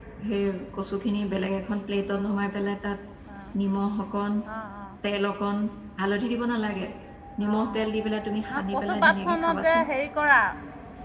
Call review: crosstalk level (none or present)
present